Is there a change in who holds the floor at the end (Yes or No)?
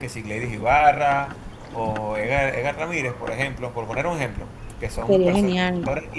No